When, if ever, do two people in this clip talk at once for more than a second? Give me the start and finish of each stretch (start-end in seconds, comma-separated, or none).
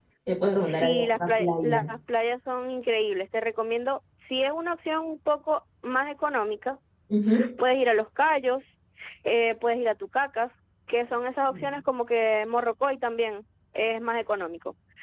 0.6-1.9